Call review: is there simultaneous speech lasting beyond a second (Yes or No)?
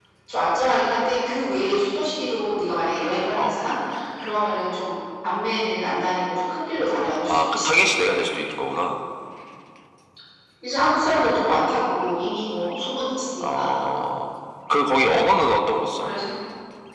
No